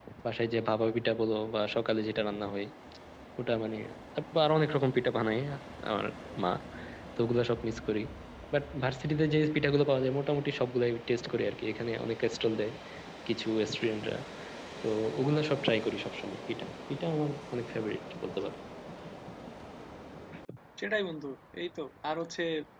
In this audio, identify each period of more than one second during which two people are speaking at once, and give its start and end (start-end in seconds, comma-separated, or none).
none